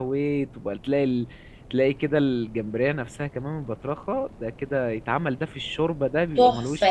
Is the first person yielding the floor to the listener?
Yes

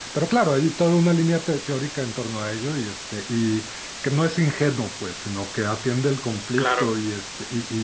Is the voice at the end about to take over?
No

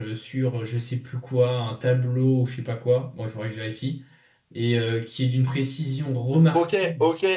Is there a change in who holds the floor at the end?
Yes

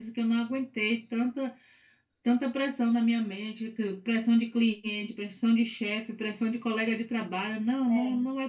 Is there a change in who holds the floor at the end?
No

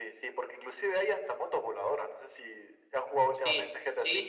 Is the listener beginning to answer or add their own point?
Yes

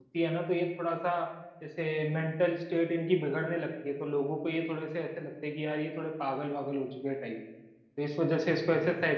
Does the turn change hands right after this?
No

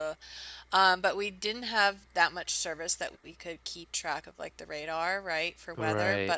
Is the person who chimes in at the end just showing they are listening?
Yes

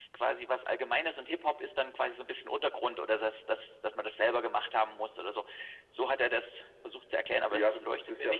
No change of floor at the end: No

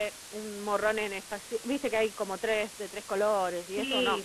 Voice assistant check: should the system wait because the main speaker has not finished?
No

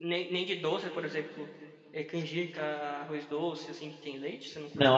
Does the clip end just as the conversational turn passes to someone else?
Yes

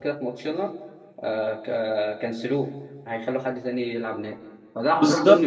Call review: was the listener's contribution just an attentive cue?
Yes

